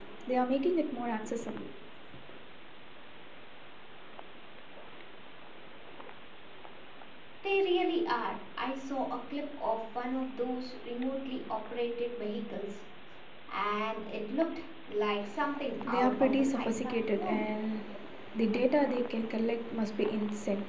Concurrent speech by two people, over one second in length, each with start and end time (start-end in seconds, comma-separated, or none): 15.9-17.5